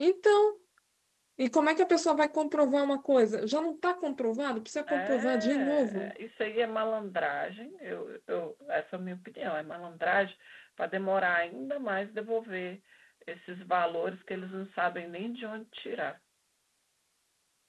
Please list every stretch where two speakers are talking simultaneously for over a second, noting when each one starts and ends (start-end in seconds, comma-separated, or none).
4.8-6.1